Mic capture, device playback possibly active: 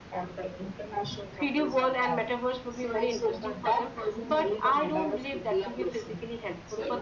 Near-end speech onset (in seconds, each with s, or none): 1.4 s